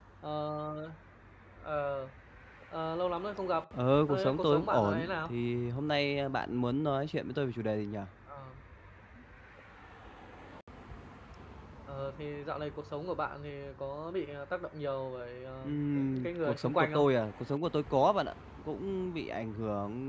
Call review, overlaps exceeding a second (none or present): present